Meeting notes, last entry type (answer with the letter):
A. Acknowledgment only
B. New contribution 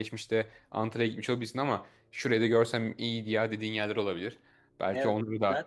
B